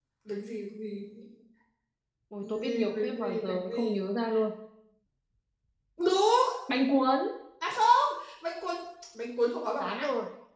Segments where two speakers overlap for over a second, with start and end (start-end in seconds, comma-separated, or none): 2.4-4.0